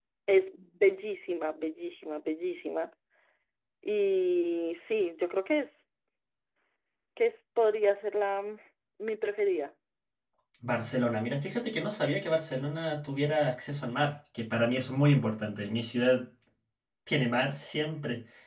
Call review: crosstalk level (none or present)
none